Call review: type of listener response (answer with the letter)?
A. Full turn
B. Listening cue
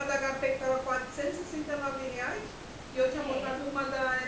B